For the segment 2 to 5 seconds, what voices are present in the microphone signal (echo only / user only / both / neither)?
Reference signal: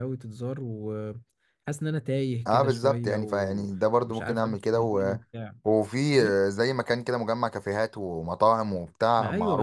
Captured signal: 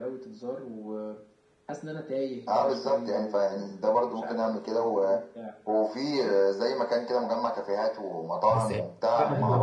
echo only